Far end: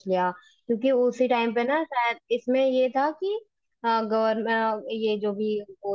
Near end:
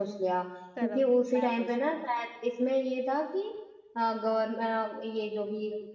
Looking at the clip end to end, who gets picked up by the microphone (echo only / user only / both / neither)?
both